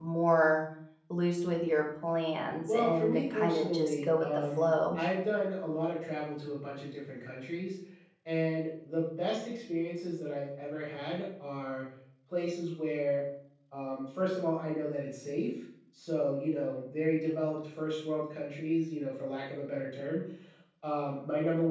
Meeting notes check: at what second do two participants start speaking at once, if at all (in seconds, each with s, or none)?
2.7 s